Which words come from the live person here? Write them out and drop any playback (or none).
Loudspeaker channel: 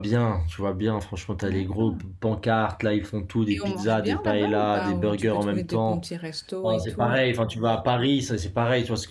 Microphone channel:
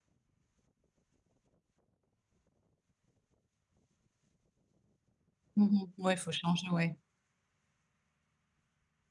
Mhm. Ouais, il faut changer, ouais.